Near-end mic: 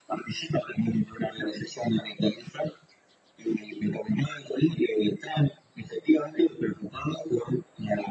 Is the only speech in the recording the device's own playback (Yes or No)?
Yes